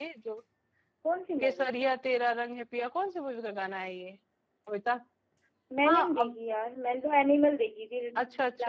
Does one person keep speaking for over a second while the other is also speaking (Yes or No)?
No